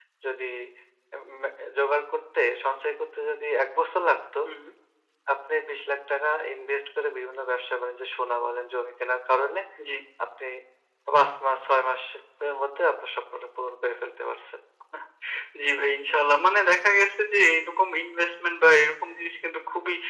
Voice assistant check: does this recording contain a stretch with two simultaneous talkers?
No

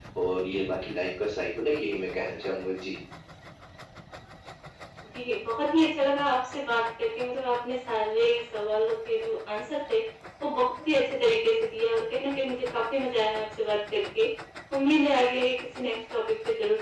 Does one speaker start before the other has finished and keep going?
No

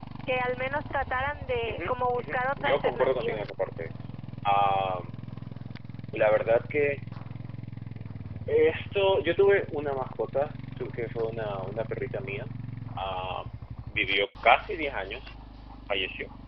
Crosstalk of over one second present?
Yes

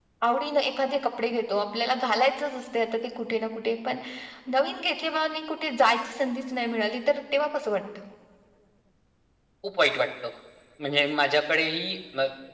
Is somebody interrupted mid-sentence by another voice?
No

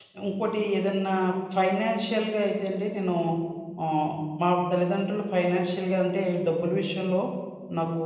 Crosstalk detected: No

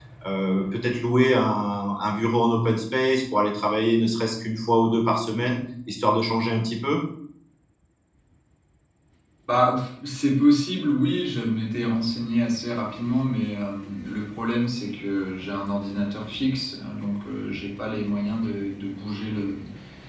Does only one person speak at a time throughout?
Yes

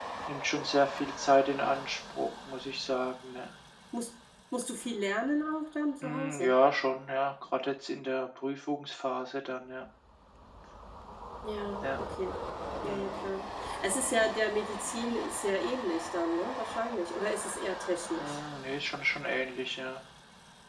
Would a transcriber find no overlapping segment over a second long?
Yes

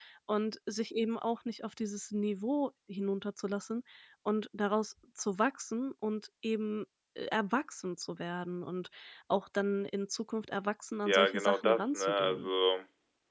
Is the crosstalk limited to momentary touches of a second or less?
No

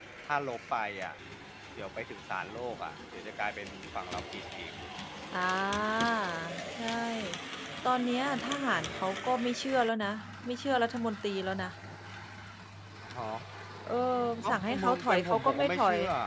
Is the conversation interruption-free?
No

